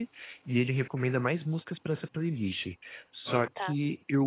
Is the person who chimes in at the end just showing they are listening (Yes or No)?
Yes